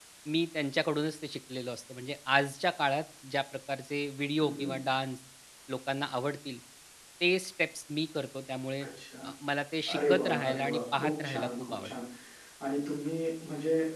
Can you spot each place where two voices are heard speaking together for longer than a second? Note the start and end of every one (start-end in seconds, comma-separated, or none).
9.9-11.9